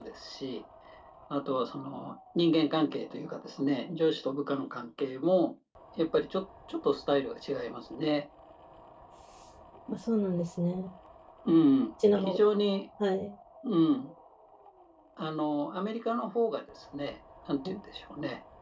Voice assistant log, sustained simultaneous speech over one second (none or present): none